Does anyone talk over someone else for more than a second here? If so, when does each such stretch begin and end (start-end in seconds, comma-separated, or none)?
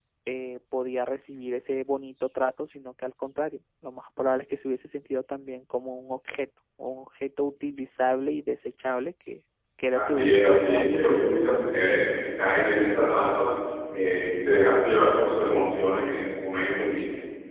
9.9-11.9